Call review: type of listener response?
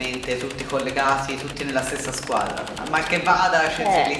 listening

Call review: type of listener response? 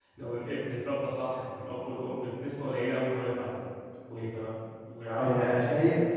taking over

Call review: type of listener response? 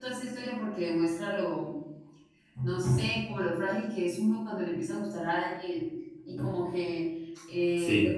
listening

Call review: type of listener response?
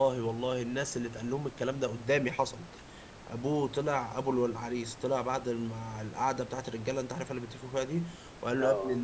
listening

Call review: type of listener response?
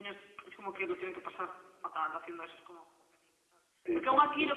listening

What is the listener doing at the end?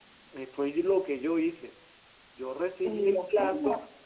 listening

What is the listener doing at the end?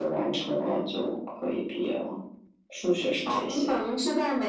taking over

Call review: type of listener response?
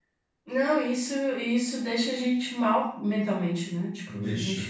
listening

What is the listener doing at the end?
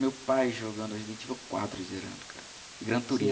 taking over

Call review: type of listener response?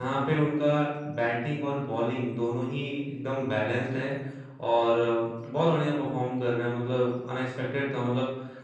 listening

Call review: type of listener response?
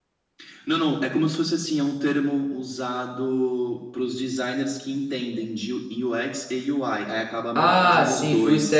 taking over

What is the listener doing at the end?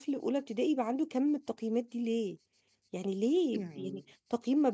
listening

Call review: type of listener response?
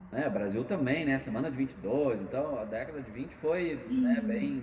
listening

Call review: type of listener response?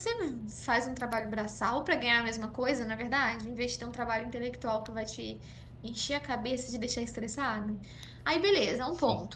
listening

